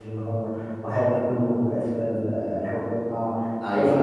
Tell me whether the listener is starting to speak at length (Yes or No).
No